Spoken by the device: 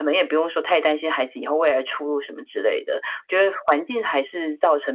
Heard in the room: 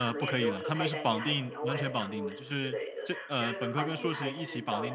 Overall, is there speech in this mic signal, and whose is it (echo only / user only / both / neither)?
both